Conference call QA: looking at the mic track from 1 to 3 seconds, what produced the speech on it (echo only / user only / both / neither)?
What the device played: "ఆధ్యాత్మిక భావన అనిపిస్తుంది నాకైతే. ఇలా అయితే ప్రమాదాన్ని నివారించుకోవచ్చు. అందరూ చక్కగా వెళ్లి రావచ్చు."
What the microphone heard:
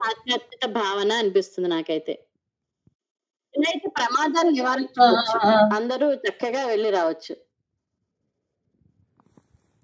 echo only